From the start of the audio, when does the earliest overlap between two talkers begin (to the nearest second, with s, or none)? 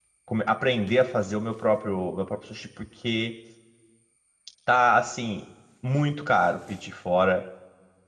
none